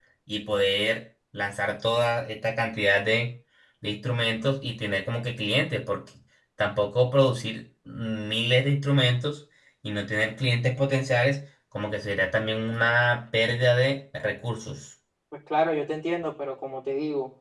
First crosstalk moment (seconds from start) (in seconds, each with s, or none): none